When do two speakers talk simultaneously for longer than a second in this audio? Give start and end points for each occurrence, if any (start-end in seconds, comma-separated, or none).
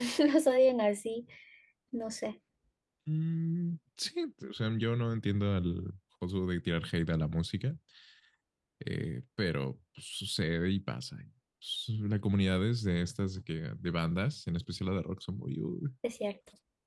none